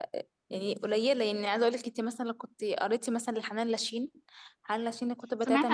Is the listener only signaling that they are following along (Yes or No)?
No